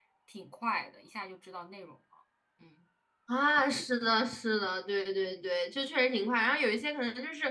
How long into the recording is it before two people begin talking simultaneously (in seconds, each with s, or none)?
none